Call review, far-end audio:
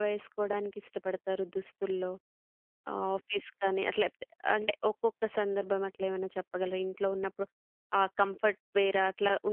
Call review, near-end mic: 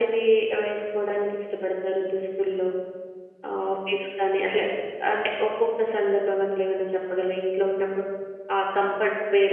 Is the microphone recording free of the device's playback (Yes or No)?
No